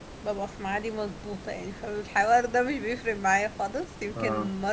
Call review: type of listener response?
listening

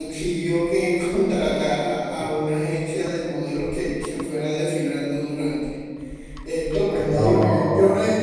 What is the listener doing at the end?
listening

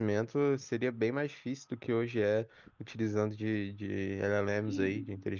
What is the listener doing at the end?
taking over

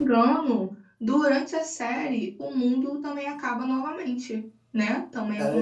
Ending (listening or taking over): taking over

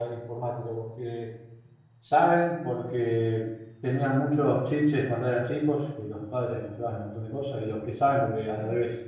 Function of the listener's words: listening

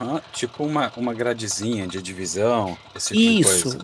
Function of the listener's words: taking over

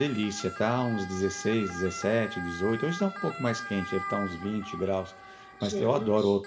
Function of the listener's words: listening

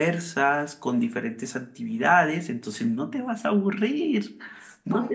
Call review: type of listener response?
taking over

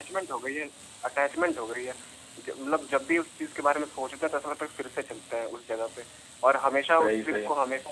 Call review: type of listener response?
listening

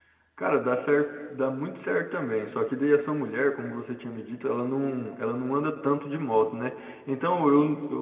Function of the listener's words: listening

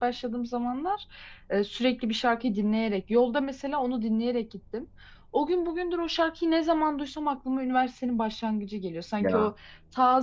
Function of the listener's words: listening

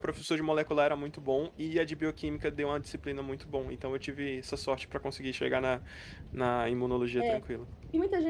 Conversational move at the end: taking over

